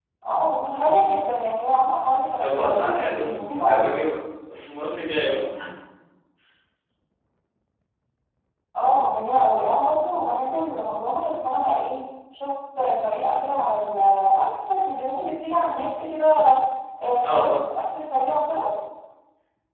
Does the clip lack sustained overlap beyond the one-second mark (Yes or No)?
No